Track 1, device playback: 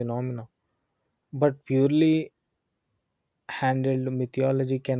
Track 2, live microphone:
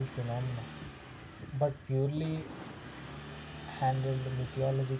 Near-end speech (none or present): none